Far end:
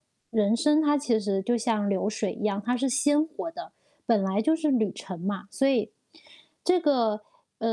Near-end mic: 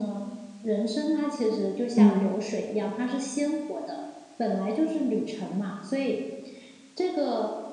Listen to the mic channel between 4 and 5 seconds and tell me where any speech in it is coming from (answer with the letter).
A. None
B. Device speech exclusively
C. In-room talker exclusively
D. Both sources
B